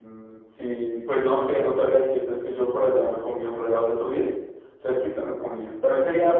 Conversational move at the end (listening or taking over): listening